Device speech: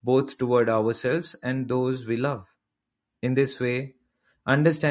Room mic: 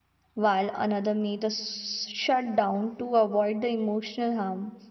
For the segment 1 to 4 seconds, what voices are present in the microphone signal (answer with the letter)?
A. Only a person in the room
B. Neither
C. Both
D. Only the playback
A